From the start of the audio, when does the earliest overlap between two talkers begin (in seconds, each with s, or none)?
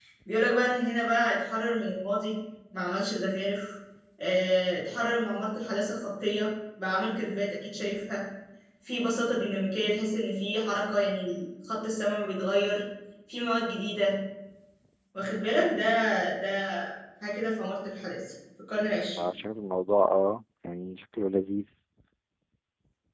none